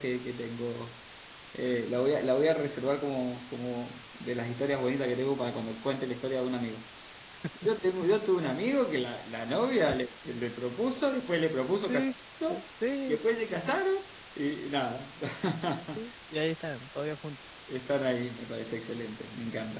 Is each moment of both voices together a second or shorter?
Yes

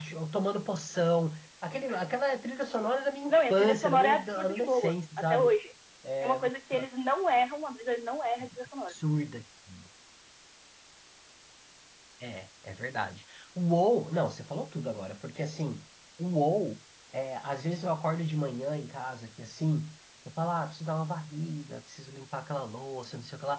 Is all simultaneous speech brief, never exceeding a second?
No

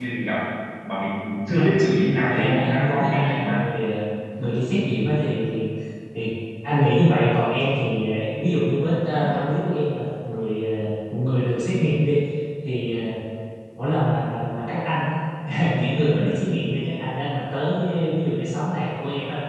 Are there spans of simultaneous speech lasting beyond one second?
Yes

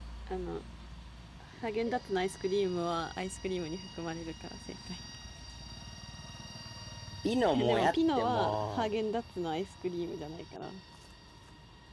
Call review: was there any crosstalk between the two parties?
Yes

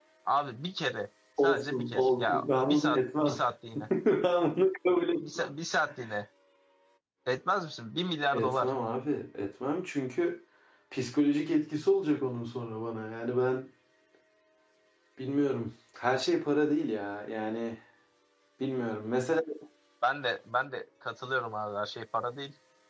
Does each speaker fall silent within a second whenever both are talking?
No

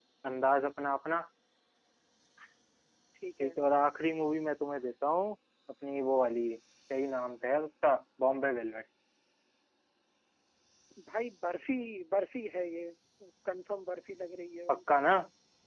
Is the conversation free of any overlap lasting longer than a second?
Yes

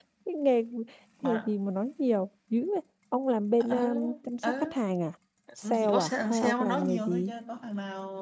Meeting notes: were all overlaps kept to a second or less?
No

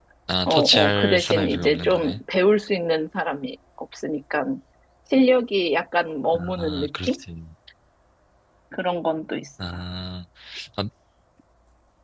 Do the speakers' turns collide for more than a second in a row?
Yes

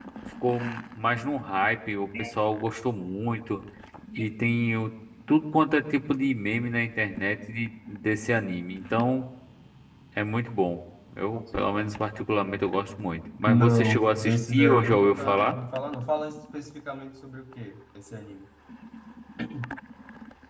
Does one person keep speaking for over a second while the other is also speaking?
Yes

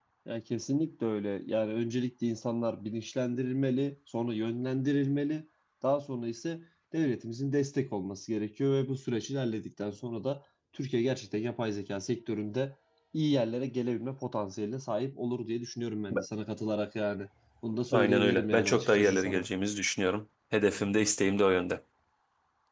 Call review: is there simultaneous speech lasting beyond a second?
Yes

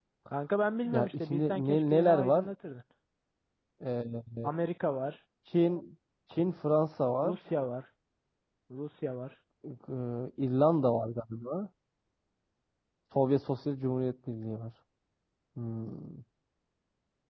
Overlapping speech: Yes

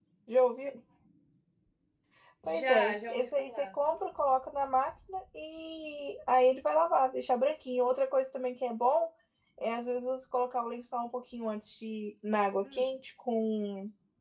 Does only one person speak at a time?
No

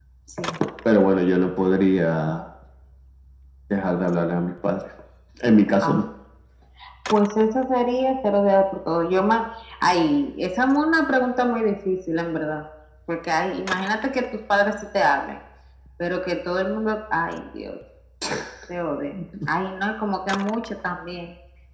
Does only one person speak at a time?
Yes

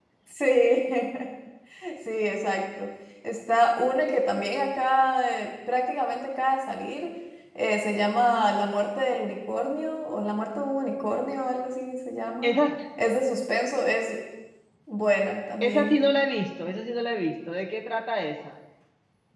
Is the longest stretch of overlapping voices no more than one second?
Yes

